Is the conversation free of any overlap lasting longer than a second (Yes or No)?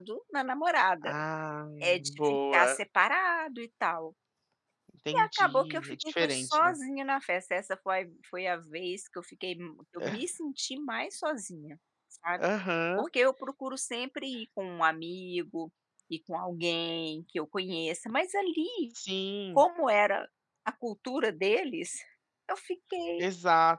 No